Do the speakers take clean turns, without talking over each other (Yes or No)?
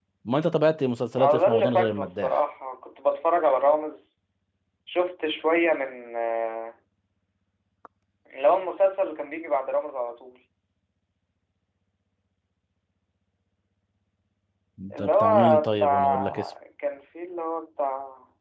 No